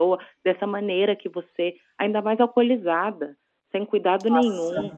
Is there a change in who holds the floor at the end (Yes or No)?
Yes